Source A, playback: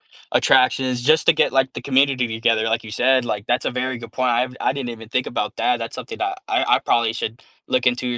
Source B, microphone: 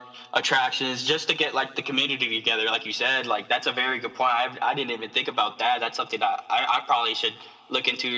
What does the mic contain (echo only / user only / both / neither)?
echo only